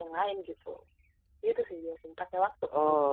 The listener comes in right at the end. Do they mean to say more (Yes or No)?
Yes